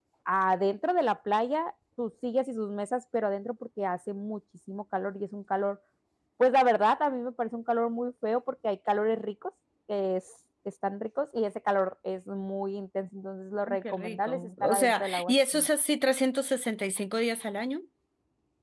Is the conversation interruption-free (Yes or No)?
No